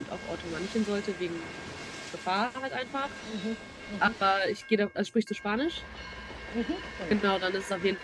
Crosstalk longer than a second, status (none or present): none